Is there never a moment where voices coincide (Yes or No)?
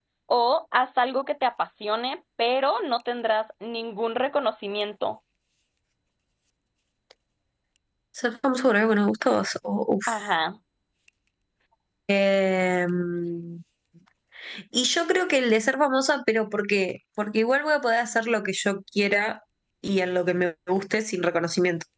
Yes